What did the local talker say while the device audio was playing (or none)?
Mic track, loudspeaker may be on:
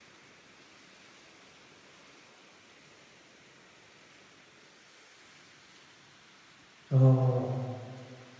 ああ、